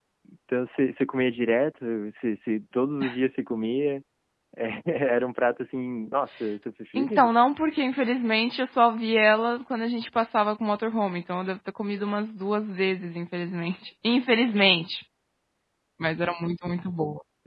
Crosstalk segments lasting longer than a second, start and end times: none

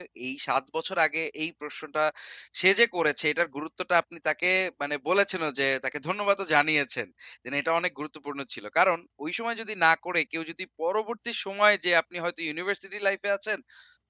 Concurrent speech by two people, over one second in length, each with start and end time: none

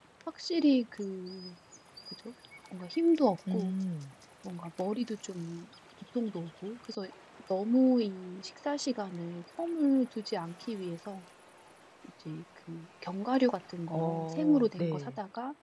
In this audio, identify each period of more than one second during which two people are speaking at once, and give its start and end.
13.9-15.1

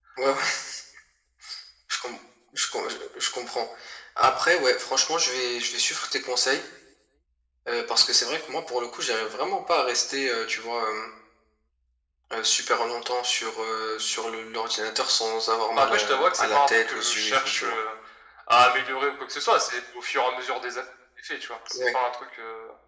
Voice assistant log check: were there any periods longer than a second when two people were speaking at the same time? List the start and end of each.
15.8-17.8

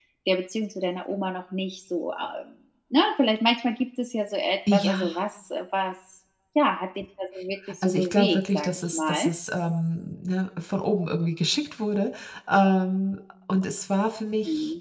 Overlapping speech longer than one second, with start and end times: 7.8-9.3

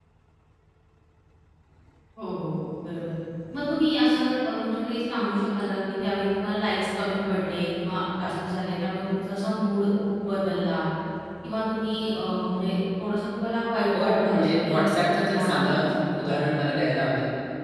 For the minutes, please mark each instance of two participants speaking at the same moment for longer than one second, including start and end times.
13.9-15.8

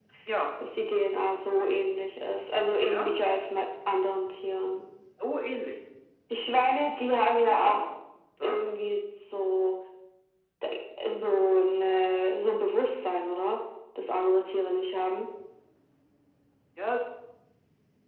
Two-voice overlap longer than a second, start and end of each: none

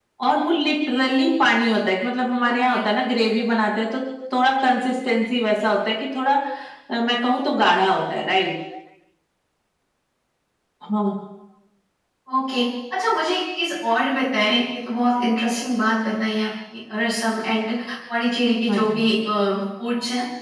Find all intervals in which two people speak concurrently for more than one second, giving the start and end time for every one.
none

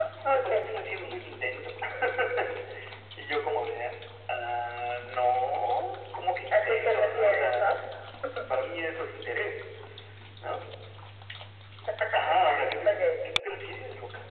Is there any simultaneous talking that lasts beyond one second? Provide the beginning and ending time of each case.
6.5-7.7

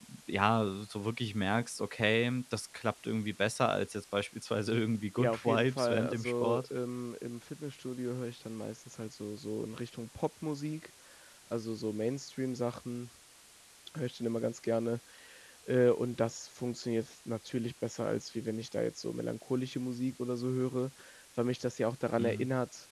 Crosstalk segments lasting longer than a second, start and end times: 5.2-6.7

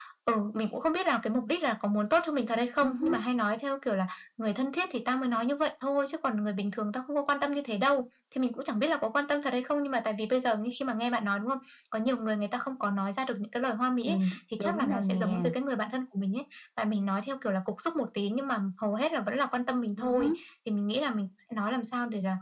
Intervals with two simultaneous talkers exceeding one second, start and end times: 14.1-15.5

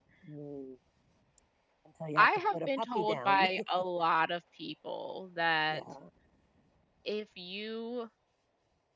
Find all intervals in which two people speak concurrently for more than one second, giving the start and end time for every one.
2.2-3.4

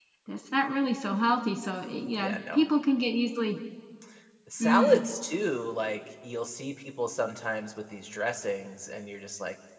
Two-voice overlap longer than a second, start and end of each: none

